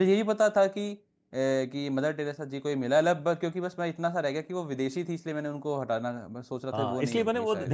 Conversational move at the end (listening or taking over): taking over